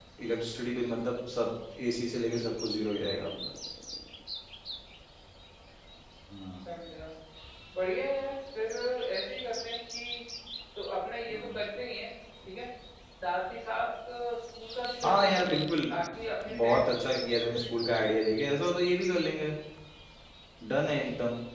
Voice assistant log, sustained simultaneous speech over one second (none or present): present